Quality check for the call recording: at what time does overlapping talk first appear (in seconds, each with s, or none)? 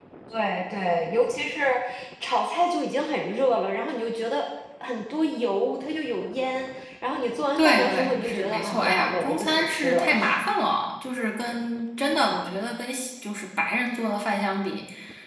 7.6 s